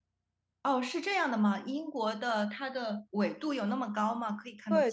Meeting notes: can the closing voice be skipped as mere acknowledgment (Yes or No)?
No